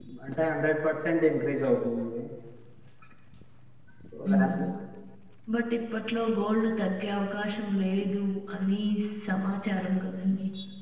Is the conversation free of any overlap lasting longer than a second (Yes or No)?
Yes